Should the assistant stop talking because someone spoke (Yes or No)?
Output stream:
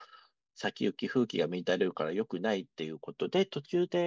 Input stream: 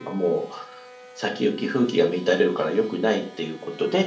No